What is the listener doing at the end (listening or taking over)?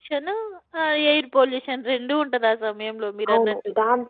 taking over